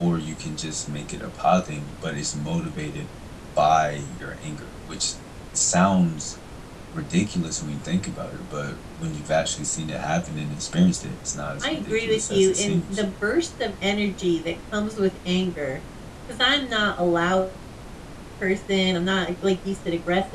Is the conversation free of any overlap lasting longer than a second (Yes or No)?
No